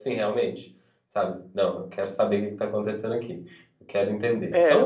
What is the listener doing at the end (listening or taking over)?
taking over